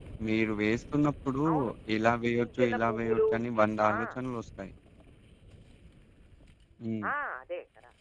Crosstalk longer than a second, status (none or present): present